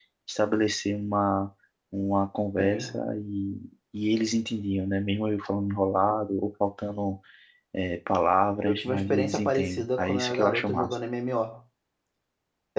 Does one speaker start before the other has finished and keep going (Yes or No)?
Yes